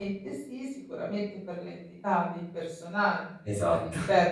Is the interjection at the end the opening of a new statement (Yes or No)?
No